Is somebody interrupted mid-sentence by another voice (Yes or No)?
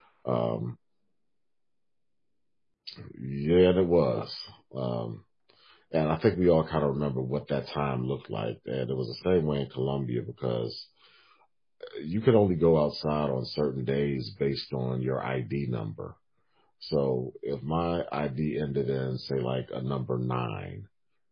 No